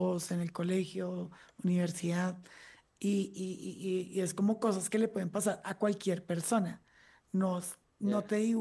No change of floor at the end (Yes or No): Yes